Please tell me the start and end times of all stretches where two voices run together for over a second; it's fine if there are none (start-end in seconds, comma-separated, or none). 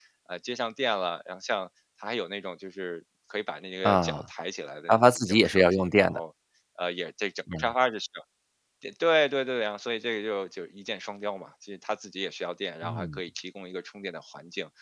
4.9-6.2